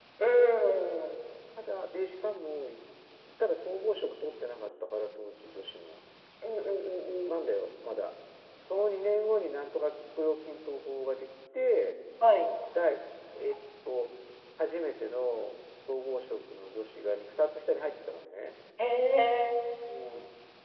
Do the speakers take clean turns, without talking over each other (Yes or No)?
Yes